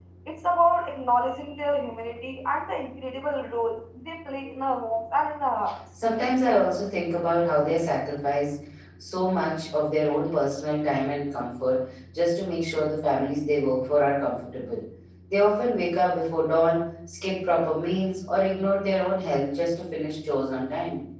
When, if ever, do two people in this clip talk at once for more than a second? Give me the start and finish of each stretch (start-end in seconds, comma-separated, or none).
none